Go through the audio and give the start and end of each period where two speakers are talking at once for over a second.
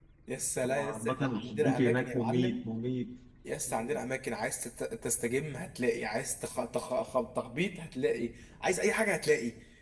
0.7-2.6

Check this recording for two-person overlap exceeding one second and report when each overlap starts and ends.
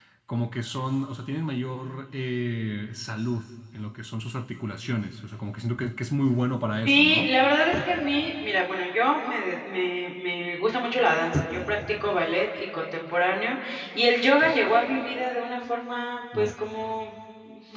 none

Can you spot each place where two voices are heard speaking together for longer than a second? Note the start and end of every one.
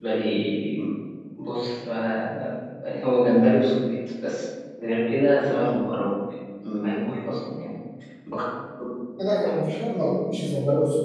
none

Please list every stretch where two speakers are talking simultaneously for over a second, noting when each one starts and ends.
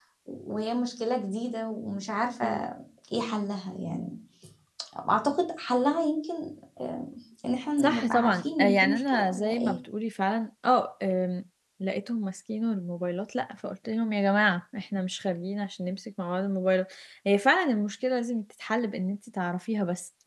7.8-9.8

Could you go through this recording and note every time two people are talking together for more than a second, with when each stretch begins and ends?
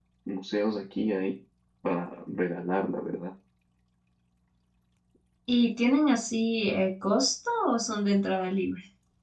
none

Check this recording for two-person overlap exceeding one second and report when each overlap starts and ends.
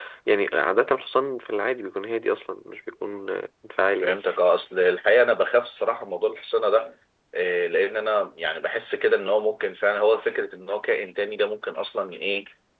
none

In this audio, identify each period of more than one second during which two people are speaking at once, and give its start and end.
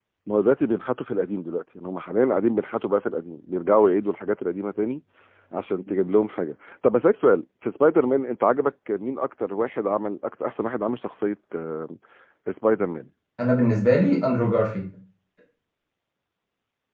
none

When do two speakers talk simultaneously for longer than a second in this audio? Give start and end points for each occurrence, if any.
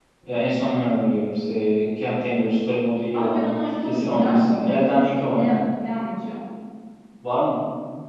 3.1-5.6

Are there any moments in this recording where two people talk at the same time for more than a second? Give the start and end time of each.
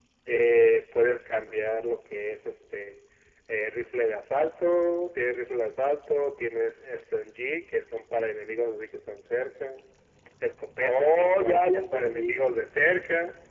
10.9-12.4

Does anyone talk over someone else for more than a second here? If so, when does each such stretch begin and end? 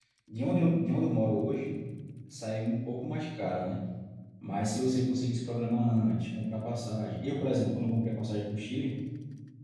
none

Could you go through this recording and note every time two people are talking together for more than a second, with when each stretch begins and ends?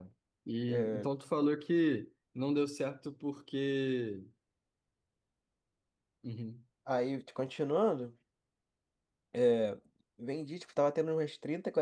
none

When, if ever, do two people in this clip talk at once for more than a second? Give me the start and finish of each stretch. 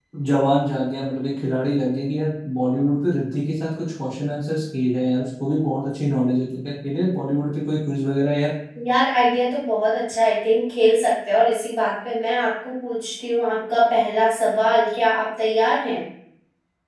none

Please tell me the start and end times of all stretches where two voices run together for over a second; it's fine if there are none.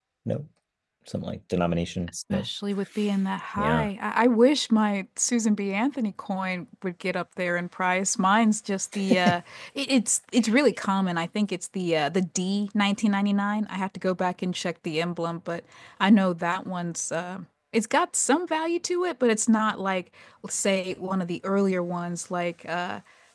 none

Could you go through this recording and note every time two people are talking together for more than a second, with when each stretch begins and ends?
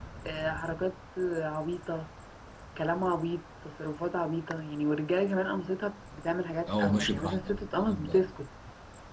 6.7-8.2

